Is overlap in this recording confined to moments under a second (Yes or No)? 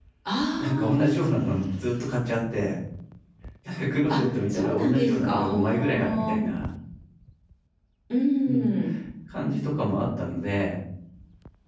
No